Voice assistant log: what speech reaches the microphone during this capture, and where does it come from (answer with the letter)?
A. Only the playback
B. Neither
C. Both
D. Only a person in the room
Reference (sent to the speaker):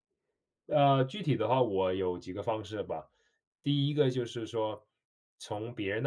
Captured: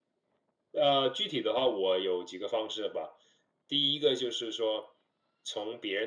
A